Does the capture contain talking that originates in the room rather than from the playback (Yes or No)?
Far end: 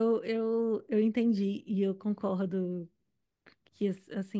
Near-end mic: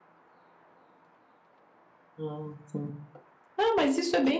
Yes